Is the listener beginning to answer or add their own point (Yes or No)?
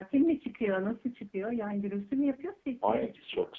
Yes